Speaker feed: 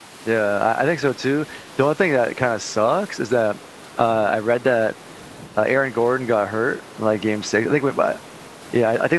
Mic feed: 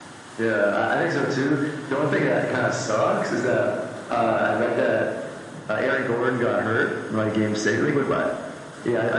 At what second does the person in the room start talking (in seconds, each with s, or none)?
none